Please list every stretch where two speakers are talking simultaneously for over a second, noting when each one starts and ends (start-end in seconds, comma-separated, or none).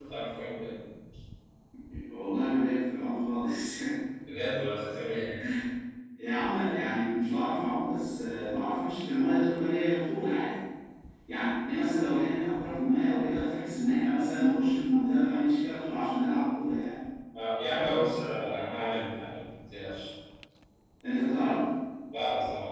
none